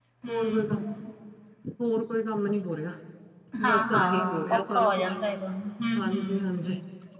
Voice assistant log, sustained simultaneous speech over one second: present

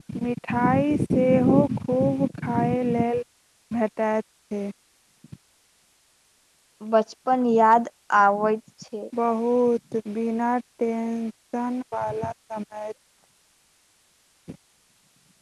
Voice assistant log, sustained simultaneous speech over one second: none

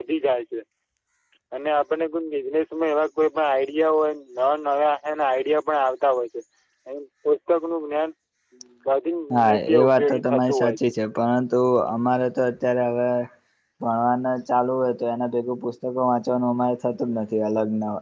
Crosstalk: present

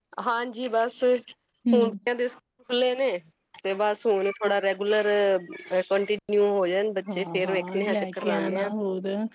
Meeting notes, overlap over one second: present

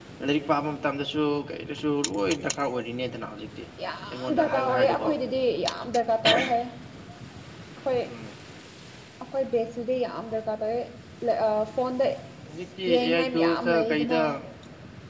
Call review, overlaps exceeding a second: present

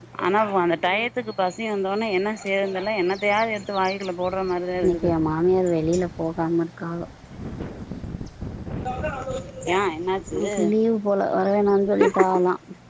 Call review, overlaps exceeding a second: none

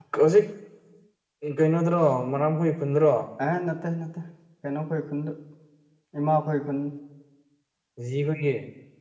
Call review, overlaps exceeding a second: none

